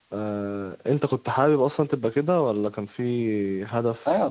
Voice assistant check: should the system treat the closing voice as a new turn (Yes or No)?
Yes